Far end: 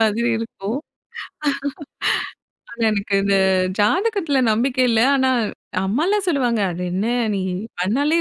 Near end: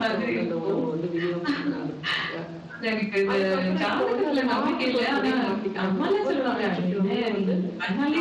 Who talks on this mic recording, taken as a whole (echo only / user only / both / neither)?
both